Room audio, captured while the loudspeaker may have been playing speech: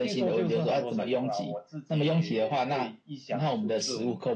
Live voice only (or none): none